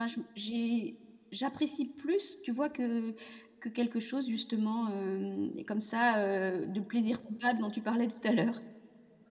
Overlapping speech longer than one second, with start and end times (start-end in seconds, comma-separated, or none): none